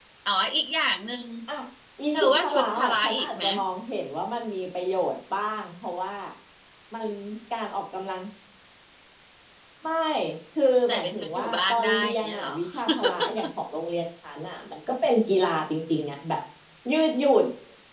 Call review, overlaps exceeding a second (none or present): present